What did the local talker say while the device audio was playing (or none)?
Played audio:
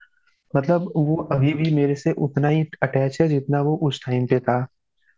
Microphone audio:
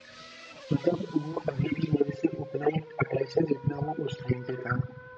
none